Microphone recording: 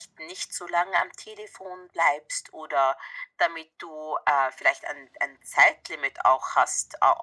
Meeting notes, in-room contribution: none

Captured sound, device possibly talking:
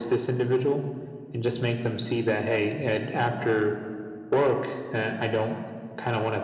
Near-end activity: none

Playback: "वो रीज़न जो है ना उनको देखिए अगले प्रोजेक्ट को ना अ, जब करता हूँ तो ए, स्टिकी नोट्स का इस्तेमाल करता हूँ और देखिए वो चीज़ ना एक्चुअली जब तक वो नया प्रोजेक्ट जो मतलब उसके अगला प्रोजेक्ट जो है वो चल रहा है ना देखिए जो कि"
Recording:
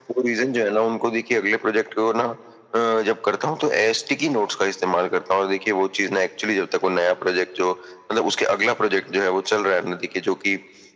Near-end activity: none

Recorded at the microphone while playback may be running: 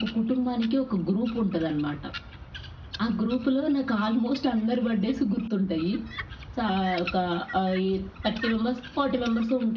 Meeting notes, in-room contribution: none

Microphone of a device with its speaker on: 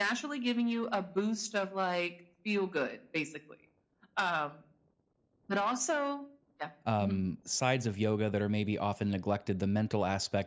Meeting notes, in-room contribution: present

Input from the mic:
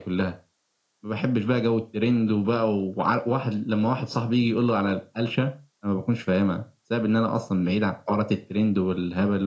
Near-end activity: none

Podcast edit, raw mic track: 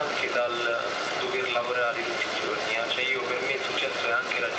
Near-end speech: none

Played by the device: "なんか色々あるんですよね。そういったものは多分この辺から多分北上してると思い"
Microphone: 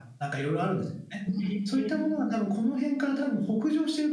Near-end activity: present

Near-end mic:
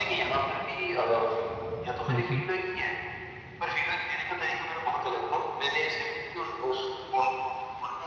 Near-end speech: present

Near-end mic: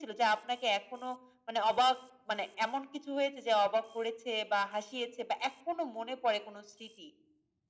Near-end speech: none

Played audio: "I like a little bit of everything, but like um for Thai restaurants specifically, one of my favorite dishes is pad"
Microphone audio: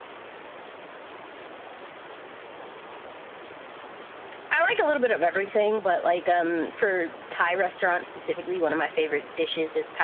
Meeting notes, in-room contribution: none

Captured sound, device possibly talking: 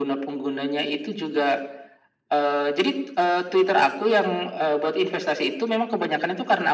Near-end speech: none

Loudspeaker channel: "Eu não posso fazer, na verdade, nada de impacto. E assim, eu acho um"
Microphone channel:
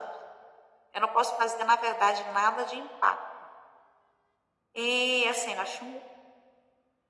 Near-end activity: none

